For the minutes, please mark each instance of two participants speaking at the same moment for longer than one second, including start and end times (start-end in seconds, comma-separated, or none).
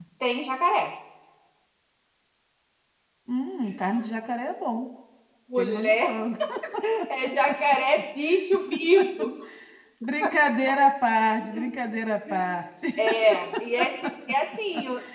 none